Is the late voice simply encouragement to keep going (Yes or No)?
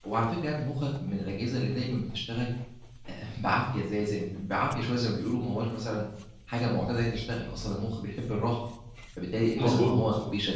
Yes